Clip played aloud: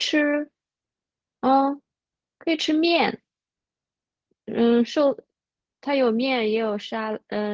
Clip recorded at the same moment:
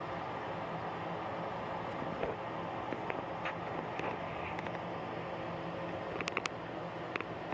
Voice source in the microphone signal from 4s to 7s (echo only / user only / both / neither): neither